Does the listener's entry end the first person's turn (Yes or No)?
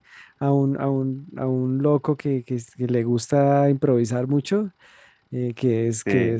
No